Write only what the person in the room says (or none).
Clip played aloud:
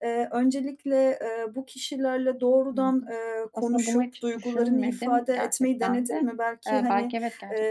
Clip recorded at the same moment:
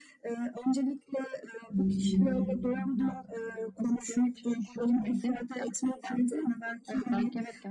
Hı.